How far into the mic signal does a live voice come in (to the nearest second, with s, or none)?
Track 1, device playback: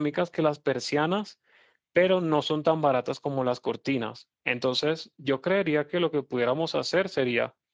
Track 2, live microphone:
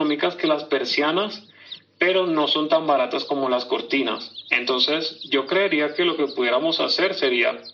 none